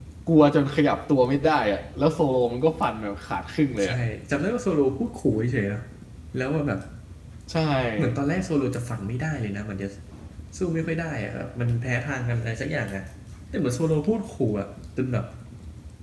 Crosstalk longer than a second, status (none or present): none